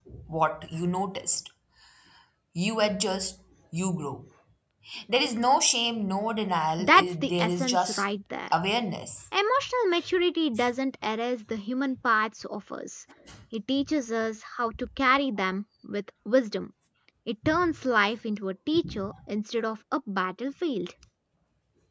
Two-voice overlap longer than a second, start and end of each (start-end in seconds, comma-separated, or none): 6.8-8.0